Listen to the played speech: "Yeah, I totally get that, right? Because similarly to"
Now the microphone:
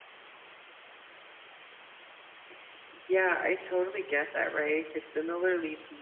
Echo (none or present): present